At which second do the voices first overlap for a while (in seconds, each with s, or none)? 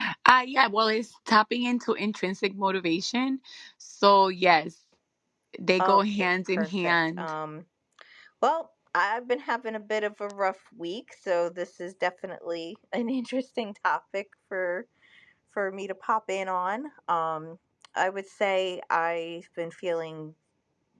5.8 s